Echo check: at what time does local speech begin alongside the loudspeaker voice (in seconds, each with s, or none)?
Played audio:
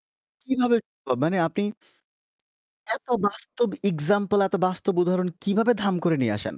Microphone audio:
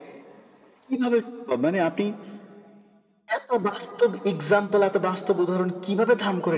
none